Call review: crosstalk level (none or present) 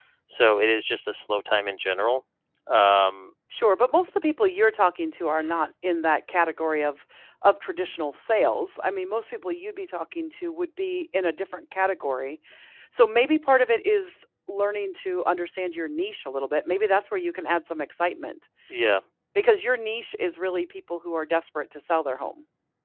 none